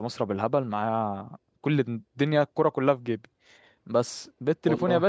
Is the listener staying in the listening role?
Yes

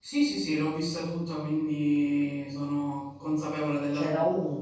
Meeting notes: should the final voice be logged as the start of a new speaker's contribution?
Yes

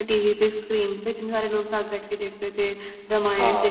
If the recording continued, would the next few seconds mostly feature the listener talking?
No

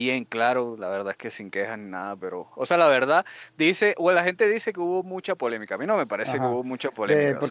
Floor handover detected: Yes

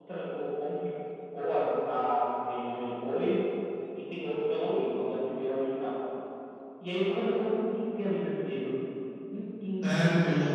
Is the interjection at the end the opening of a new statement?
Yes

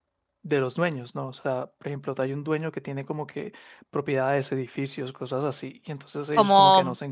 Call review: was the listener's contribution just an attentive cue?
No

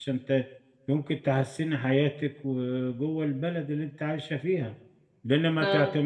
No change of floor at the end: Yes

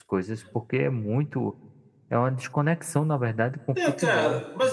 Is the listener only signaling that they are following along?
No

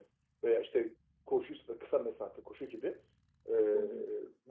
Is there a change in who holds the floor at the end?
No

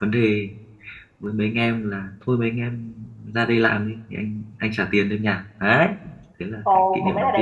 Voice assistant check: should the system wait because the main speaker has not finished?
No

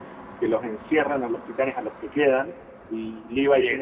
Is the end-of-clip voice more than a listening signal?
No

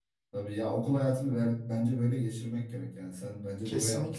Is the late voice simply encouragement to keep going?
No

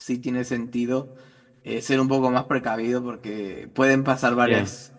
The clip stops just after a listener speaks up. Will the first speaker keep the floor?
Yes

